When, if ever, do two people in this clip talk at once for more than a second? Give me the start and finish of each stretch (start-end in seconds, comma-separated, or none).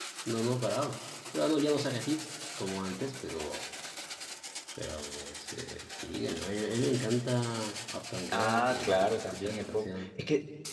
8.3-10.1